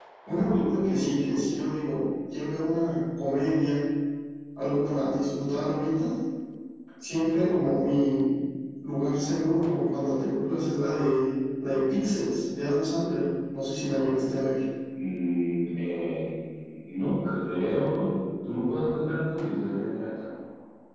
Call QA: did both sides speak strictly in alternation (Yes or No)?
Yes